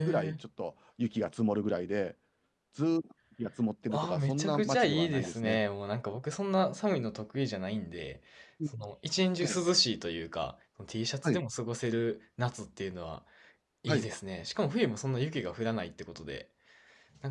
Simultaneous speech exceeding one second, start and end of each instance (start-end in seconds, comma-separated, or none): 3.9-5.6